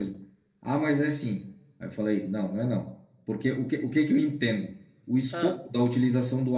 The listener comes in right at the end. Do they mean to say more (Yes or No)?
No